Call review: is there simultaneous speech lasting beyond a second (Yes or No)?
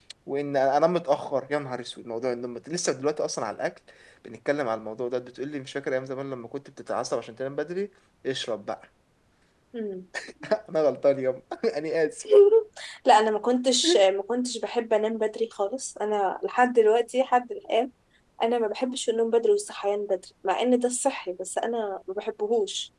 No